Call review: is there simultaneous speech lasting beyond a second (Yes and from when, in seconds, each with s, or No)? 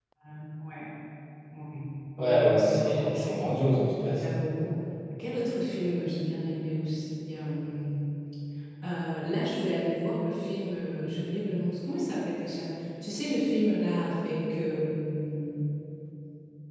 Yes, from 2.2 s